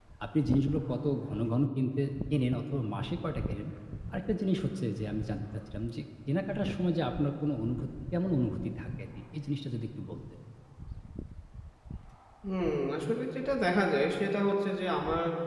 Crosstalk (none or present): none